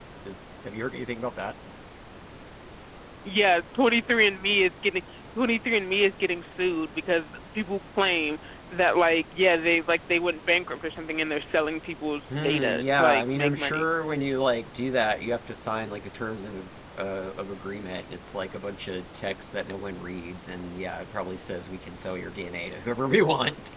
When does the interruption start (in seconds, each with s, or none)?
12.3 s